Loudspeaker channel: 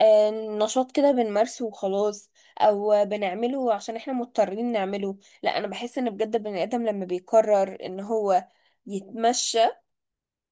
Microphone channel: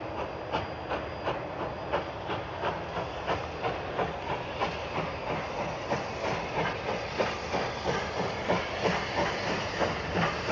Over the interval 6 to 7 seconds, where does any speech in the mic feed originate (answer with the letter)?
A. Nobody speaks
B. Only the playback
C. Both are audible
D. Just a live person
A